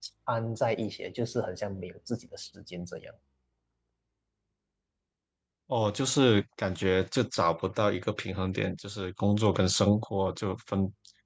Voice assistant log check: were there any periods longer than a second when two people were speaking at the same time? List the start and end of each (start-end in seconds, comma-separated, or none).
none